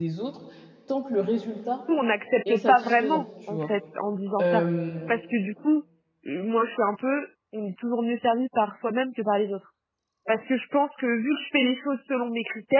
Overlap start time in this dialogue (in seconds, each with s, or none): 2.5 s